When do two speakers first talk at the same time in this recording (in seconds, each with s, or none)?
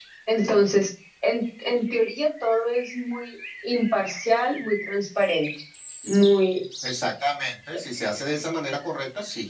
none